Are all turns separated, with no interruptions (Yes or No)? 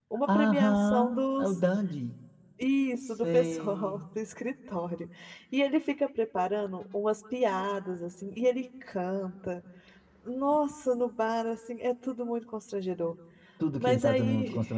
No